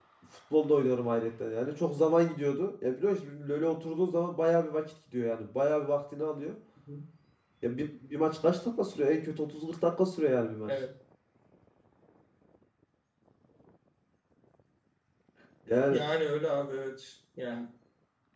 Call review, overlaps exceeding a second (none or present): none